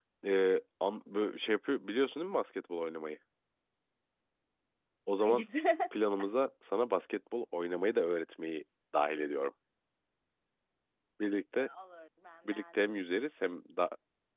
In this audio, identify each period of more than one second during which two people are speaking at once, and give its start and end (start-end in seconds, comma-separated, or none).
none